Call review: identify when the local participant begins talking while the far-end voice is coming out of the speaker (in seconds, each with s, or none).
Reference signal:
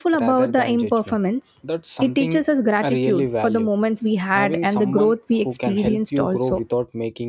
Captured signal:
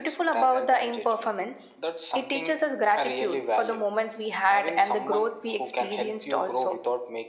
none